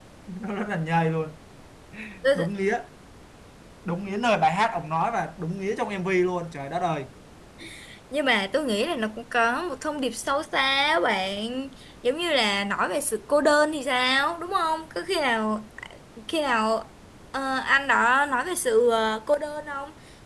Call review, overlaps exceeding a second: none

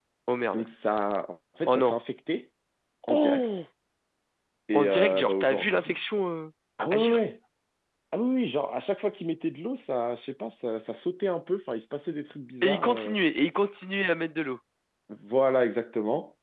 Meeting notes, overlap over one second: present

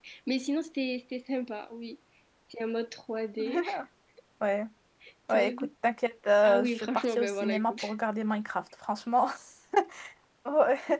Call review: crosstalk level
present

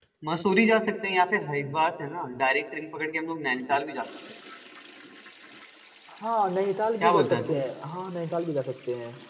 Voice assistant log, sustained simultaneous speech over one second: none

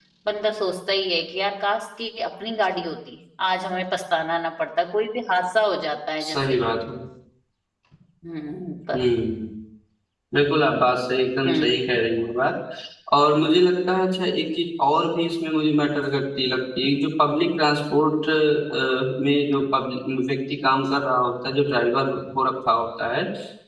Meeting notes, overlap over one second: none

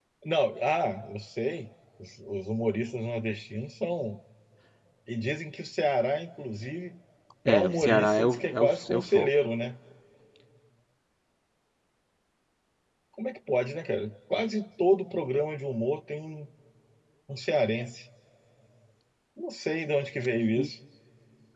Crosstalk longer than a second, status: present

